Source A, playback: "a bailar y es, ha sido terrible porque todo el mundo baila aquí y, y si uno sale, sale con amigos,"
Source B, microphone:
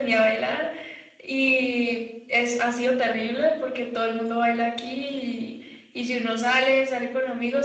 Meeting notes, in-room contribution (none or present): none